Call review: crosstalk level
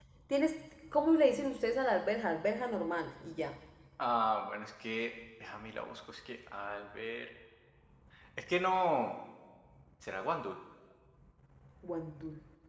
none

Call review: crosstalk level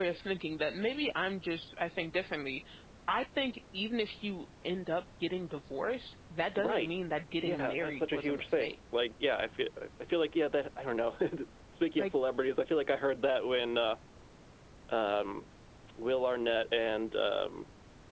present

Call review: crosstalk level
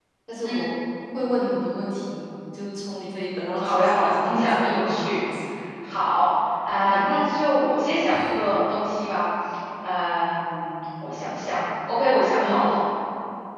present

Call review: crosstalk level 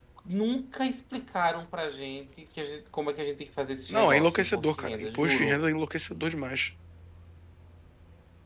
present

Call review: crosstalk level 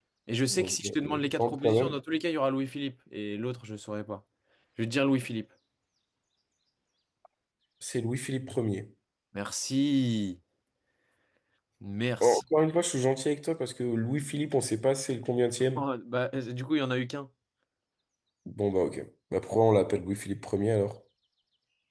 present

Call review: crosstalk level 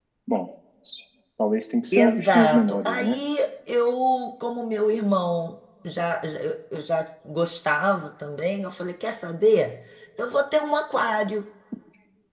present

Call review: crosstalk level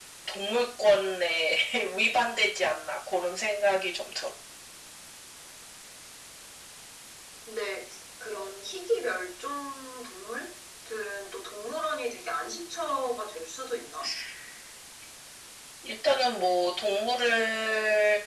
none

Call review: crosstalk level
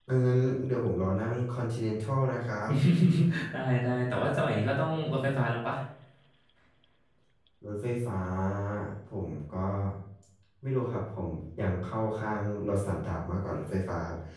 none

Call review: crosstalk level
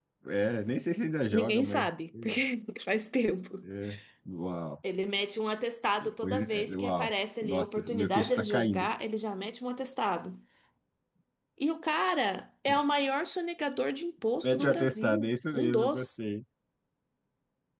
present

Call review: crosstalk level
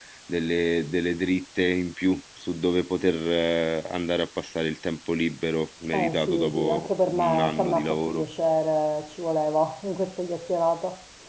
present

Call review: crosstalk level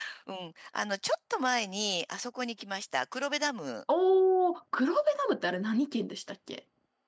none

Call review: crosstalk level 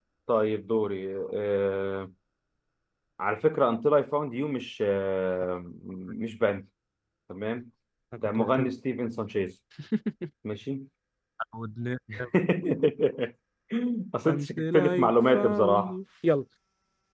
present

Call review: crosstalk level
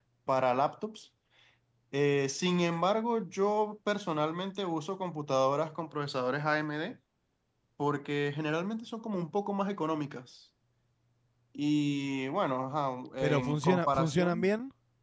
present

